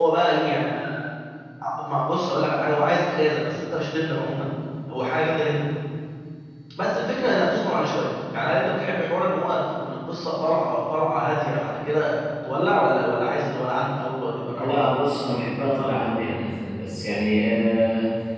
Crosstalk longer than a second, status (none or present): none